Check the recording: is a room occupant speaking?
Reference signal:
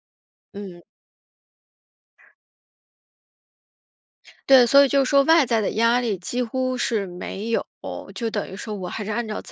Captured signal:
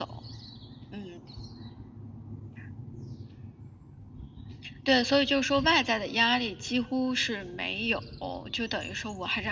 No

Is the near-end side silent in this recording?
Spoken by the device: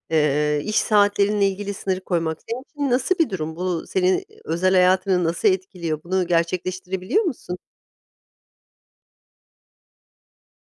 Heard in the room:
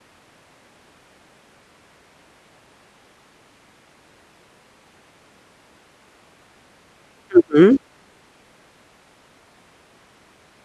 No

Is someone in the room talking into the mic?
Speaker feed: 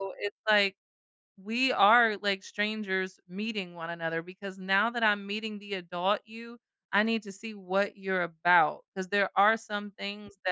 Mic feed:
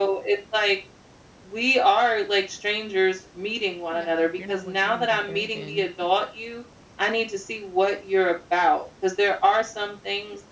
Yes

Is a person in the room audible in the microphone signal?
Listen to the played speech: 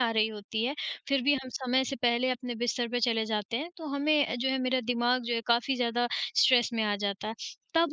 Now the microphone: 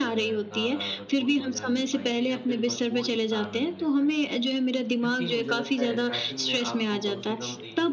Yes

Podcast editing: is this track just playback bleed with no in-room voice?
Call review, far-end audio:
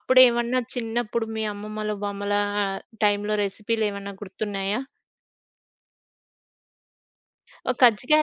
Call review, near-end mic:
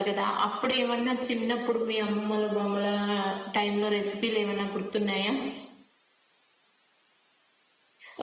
Yes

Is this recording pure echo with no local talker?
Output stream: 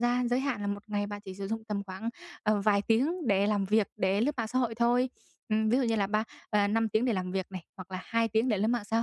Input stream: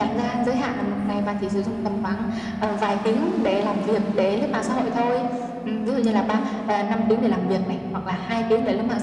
Yes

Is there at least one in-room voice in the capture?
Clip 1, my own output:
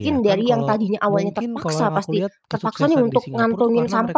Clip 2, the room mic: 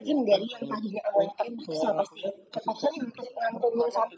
No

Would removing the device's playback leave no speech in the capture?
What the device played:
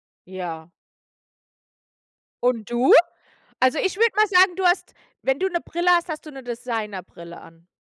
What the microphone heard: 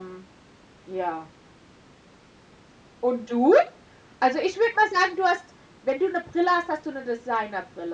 Yes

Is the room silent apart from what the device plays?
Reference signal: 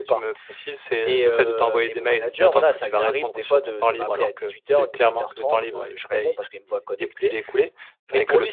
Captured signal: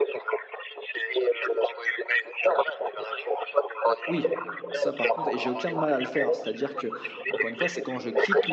No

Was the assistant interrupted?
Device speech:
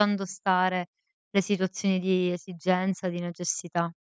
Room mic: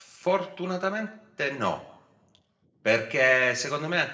Yes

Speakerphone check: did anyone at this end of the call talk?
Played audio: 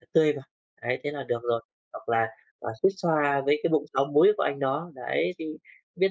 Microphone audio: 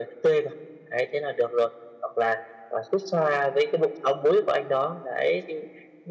No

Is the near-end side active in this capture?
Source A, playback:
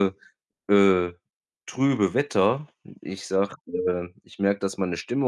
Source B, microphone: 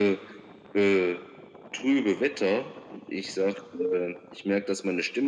No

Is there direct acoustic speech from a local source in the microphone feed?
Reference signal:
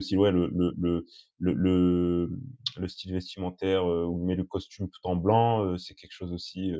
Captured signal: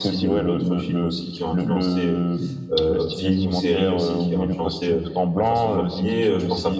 Yes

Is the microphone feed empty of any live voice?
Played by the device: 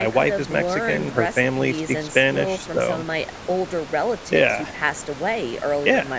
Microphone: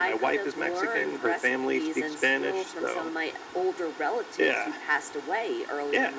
Yes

